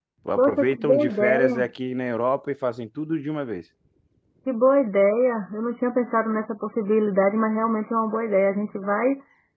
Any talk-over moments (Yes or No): Yes